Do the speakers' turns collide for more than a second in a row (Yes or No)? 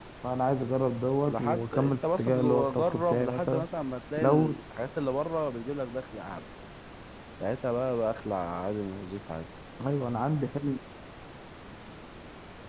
Yes